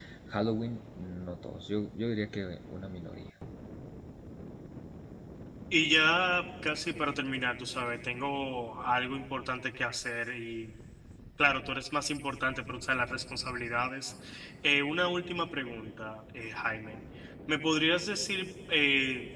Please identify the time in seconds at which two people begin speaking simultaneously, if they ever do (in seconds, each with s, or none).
none